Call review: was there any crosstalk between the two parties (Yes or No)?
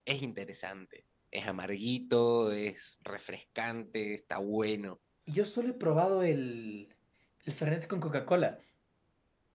No